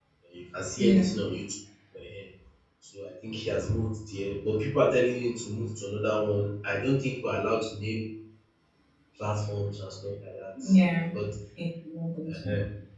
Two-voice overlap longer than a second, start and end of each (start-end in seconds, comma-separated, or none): none